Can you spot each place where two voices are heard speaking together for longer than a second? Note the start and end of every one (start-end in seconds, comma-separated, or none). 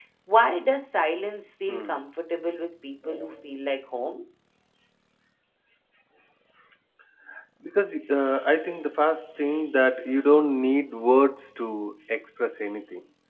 none